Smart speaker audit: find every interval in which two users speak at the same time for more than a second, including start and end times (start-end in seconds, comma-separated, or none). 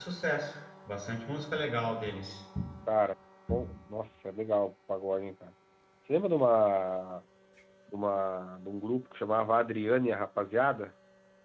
none